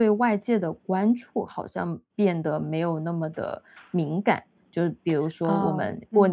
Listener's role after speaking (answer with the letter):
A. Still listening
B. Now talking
A